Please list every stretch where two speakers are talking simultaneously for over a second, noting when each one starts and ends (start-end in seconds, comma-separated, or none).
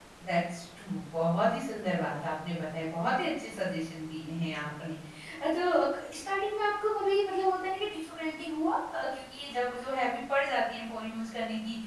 none